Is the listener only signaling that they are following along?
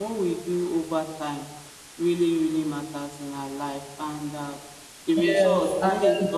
Yes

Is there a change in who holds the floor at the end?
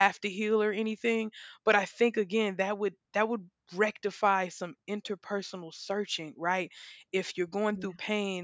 No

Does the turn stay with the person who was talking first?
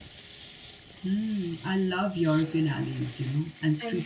Yes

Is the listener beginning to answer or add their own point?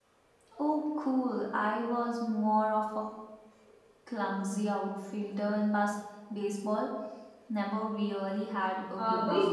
Yes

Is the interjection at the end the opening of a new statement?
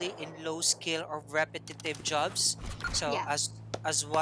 No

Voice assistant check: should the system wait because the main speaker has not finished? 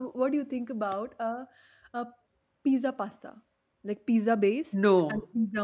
Yes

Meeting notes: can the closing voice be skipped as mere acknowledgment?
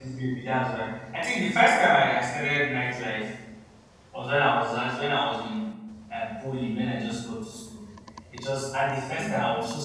Yes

